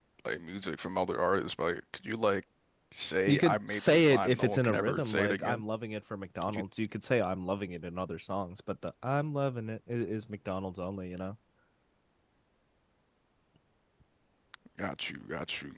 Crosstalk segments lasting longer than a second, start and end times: 3.3-5.6

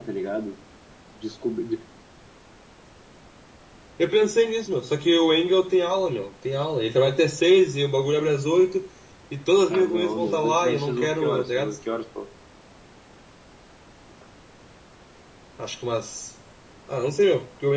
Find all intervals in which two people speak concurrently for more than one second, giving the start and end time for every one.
9.7-11.7

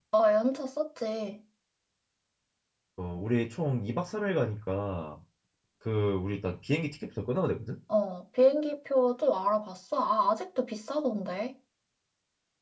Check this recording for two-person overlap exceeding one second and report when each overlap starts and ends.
none

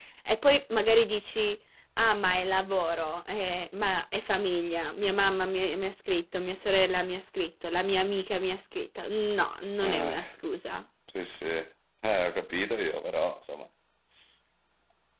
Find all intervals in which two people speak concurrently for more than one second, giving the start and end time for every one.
none

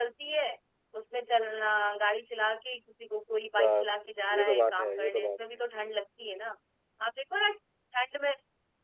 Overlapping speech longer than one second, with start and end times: 4.3-5.6

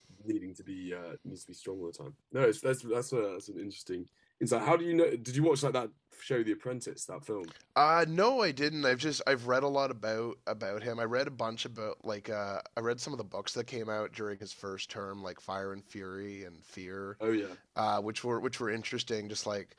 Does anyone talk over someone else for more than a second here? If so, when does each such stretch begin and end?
none

